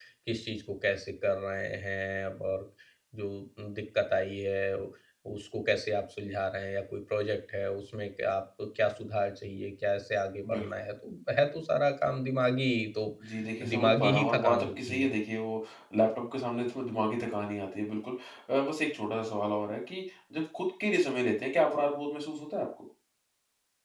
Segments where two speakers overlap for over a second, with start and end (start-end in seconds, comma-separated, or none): 13.6-15.1